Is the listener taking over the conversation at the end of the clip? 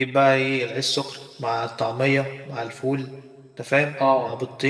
No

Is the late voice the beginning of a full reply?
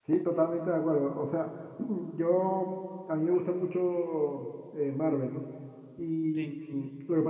No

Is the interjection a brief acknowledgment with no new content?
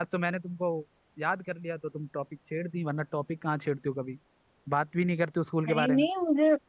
No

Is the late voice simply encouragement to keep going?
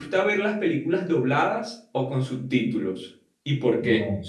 No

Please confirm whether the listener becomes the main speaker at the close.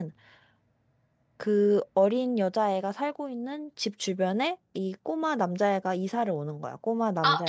Yes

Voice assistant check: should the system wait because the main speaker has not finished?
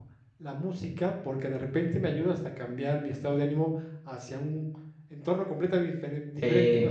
Yes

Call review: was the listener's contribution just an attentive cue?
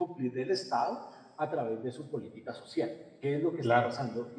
Yes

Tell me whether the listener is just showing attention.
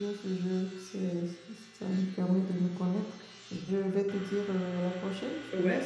No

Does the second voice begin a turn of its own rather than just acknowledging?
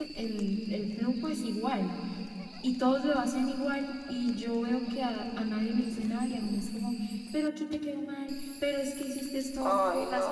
No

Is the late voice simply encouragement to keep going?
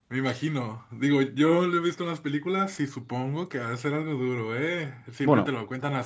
Yes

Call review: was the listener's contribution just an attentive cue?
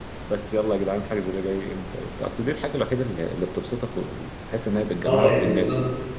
No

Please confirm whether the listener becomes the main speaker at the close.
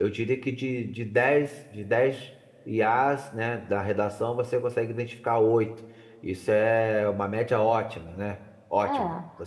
No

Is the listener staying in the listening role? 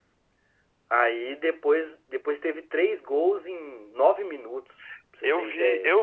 No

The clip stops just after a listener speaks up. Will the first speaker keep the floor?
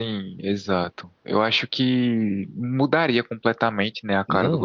No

